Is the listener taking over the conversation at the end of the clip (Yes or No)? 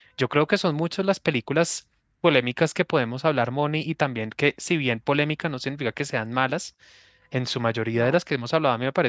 No